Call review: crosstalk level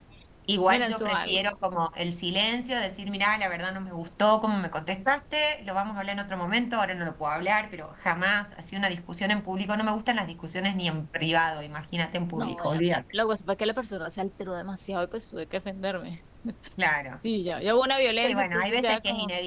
present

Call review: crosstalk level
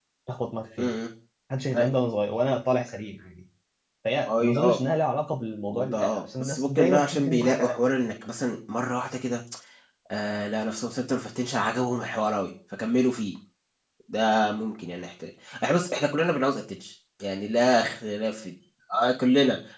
present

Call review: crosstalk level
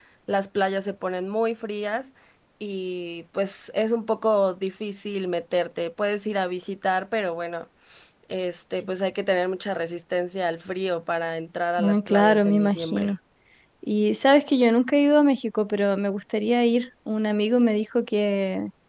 present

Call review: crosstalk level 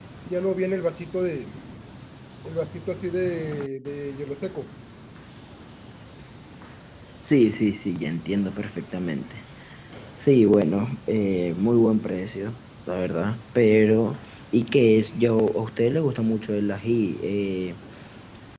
none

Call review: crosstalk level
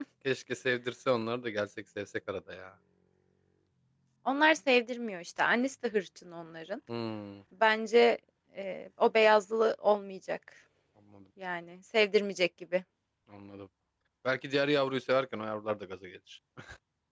none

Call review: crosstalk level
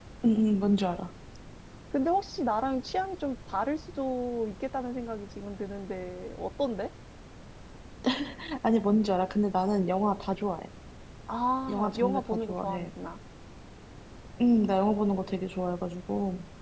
present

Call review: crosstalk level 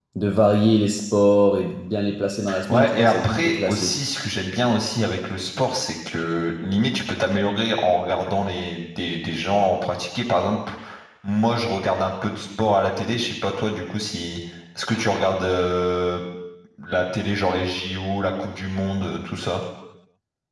present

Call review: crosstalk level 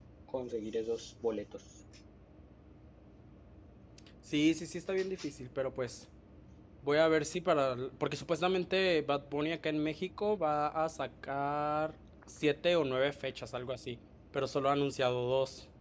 none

